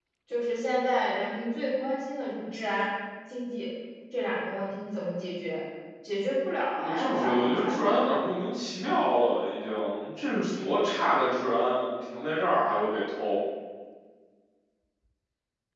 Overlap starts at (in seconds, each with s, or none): 6.7 s